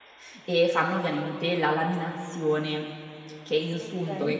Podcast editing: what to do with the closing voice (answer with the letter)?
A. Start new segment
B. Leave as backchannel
B